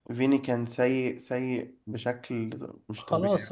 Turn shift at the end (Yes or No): Yes